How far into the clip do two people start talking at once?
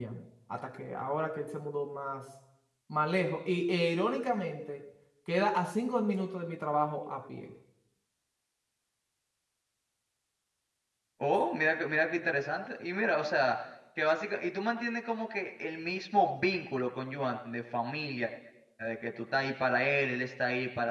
none

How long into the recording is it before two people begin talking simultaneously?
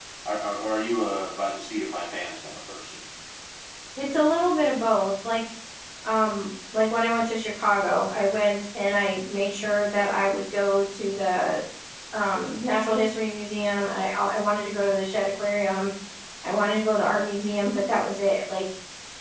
none

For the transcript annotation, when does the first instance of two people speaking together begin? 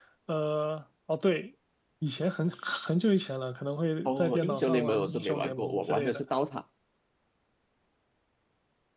4.0 s

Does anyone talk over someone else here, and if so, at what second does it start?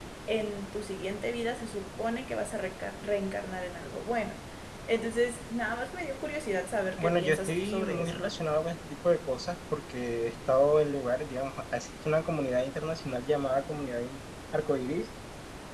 7.0 s

